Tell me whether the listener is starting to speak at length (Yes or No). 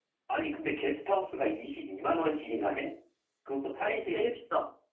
Yes